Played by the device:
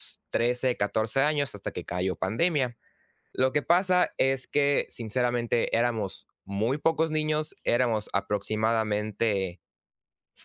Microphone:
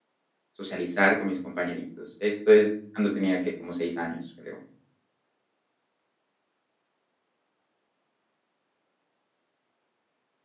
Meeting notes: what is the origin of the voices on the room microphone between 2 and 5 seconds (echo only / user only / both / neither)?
user only